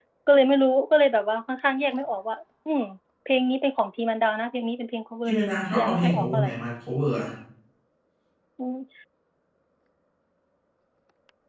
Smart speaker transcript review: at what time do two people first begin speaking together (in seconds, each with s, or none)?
5.2 s